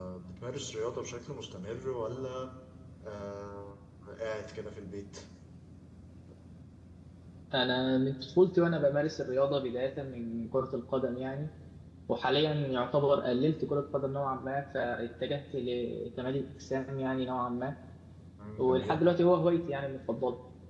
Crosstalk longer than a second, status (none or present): none